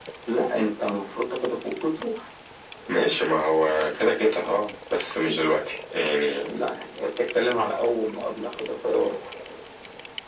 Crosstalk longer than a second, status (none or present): none